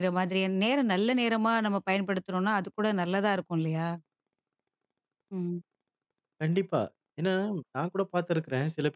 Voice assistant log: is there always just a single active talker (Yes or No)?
Yes